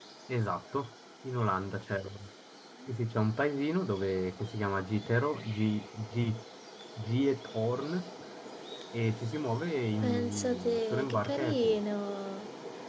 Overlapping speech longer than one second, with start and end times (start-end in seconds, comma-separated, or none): 10.0-11.8